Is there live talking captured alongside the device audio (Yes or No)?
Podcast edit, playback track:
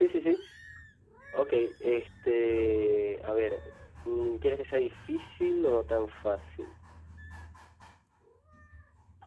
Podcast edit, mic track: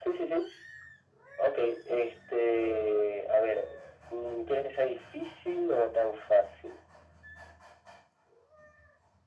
No